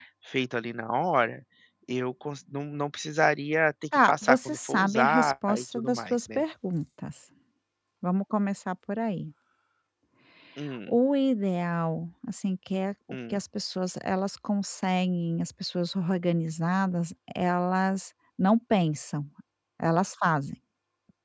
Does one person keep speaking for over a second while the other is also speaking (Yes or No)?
Yes